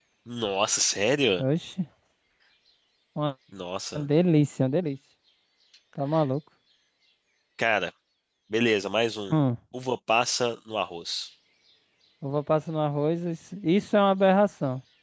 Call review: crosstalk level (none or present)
none